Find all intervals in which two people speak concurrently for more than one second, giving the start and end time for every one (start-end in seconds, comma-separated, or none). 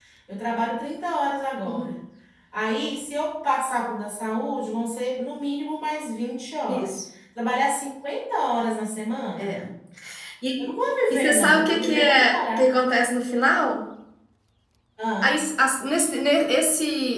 11.1-12.6